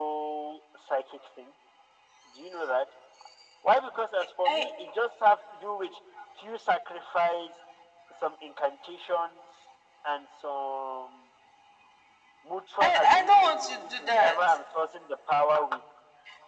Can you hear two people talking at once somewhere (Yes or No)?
Yes